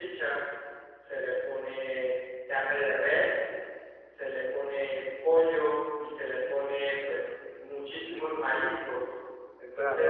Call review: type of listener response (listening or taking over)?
taking over